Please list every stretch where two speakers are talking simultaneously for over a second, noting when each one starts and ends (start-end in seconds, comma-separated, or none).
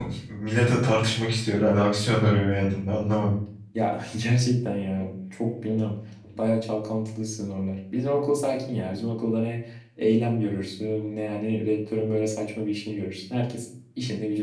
none